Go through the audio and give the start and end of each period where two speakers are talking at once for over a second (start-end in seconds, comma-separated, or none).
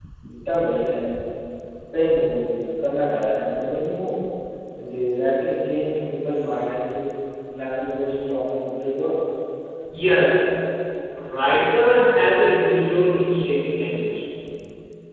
none